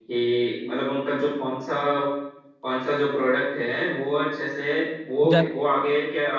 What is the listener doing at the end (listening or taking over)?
listening